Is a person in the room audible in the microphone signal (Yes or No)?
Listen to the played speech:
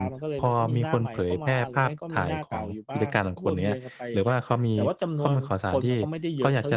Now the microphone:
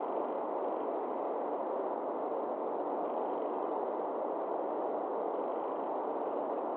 No